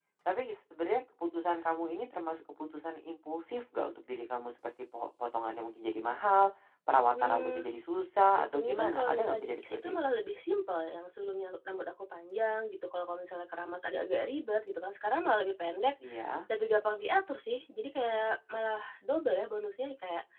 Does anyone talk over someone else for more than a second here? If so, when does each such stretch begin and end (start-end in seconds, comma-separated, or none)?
8.4-9.9